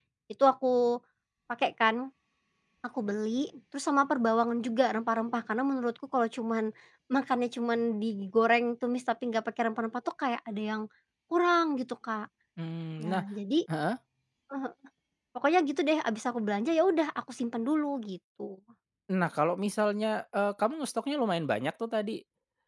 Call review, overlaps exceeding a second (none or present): none